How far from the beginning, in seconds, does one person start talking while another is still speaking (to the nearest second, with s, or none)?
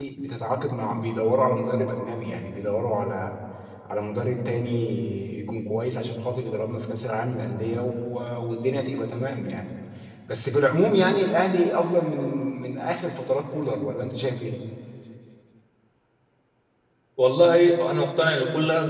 none